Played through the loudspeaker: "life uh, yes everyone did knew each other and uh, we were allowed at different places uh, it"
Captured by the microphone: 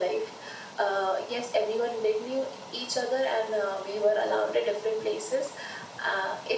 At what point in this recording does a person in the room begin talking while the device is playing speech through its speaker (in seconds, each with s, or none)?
none